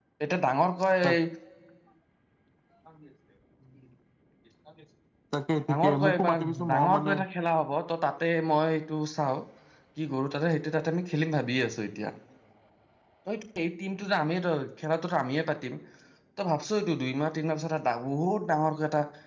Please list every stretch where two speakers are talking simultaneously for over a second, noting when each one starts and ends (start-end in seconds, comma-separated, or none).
5.7-7.2